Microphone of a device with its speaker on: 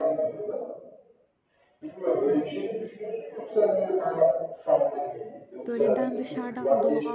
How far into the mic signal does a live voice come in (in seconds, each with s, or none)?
5.7 s